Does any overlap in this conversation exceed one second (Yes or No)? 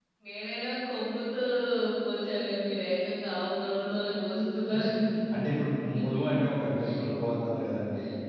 No